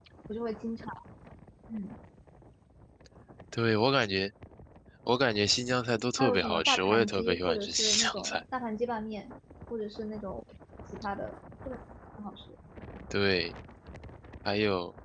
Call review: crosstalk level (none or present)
present